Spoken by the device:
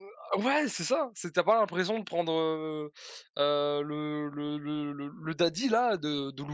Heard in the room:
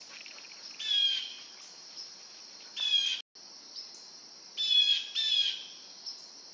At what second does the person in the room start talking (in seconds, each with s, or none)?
none